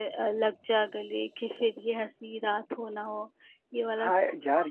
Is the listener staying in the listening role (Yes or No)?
No